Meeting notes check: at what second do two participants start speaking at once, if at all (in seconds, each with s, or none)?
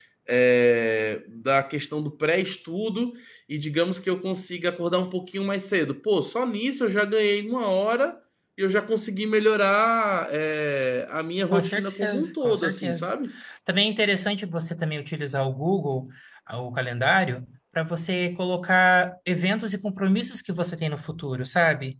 11.5 s